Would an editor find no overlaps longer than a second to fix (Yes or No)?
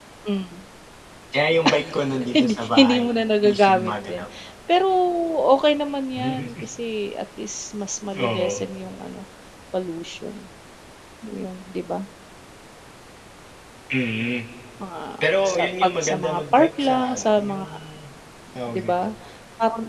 No